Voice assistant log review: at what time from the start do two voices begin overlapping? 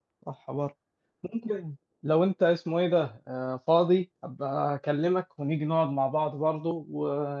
none

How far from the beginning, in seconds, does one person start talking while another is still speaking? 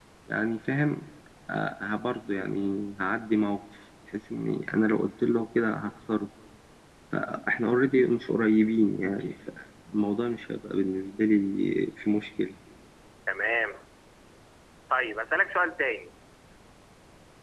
none

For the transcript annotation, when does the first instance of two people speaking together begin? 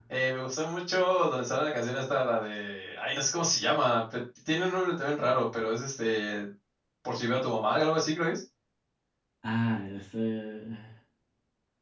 none

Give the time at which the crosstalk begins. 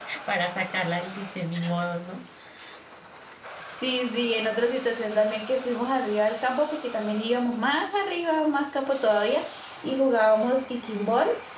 none

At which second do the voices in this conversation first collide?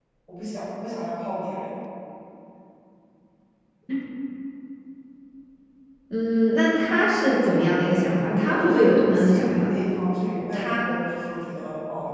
7 s

